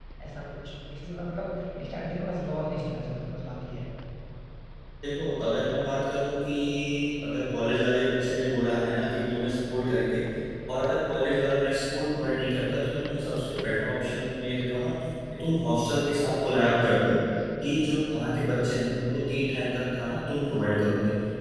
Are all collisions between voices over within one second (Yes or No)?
Yes